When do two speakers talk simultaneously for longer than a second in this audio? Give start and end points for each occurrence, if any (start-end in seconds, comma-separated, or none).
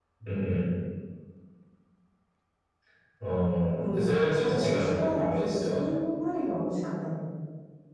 3.8-5.9